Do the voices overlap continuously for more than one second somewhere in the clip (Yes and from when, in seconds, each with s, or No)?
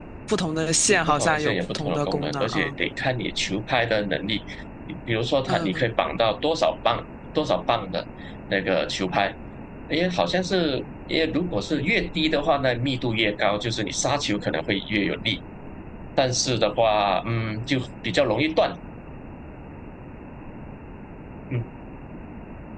Yes, from 0.9 s